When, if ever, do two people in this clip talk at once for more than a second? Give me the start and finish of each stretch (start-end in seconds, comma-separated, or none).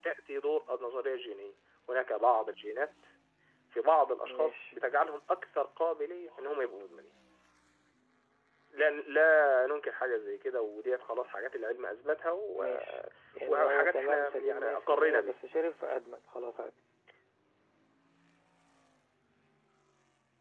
13.5-15.4